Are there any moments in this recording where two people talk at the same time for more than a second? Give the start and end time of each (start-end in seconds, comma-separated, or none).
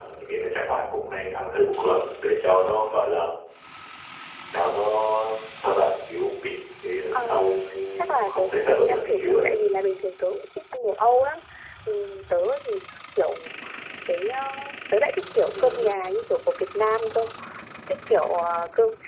8.1-9.4